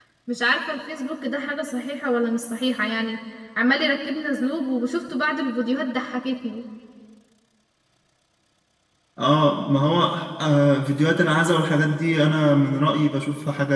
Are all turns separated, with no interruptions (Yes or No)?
Yes